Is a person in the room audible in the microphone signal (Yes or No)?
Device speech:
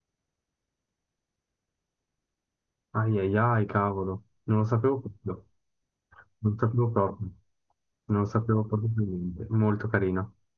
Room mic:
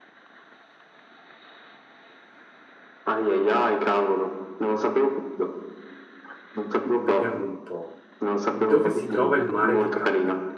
Yes